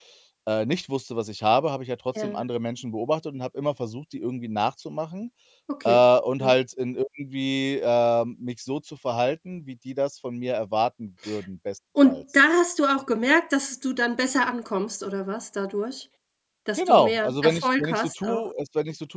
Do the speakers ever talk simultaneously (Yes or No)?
Yes